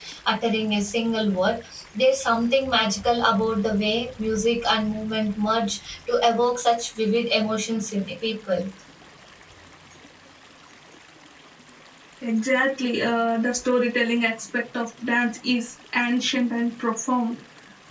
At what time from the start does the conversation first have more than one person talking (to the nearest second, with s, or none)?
none